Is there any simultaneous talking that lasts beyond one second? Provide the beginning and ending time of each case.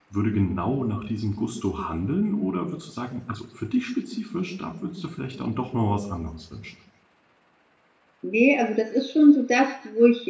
none

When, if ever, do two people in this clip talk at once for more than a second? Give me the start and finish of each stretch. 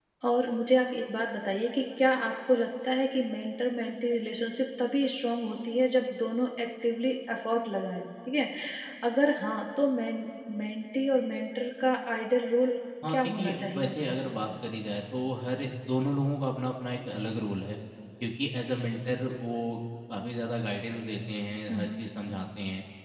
13.1-14.5

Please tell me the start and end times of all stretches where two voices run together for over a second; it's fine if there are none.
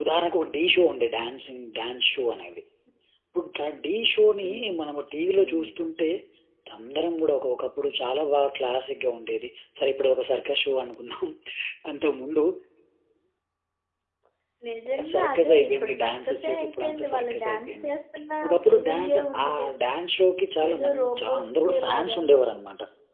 15.1-17.9, 18.5-19.7, 20.7-22.2

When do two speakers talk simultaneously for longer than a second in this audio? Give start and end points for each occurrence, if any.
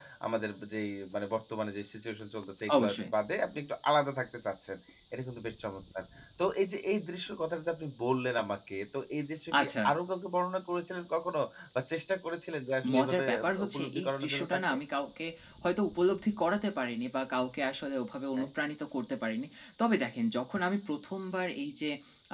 12.9-14.7

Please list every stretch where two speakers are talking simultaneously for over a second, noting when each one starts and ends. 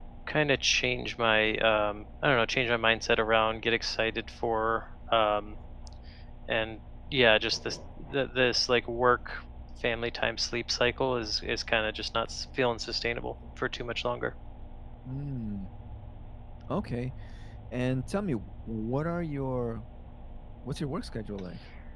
none

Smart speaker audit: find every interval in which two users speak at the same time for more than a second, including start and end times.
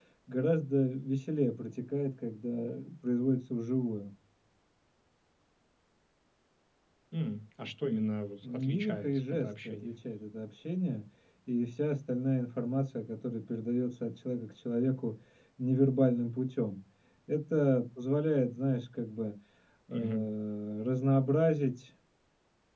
8.4-9.9

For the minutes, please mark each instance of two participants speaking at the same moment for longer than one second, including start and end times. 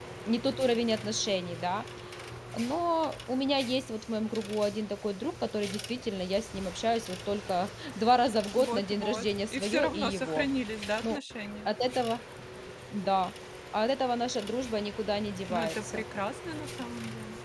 8.6-10.5

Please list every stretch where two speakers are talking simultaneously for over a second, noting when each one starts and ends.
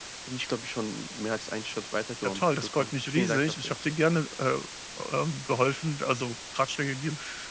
2.2-3.8

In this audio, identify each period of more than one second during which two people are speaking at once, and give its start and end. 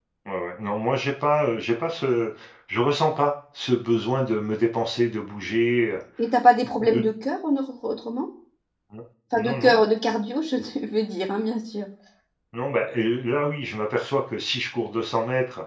none

